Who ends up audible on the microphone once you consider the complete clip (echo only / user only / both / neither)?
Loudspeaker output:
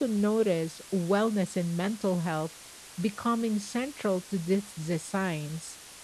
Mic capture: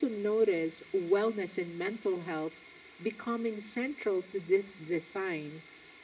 echo only